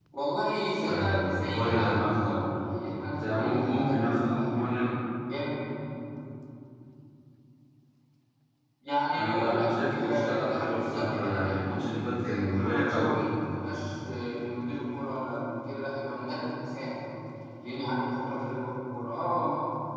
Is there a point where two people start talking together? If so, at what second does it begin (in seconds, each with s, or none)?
0.8 s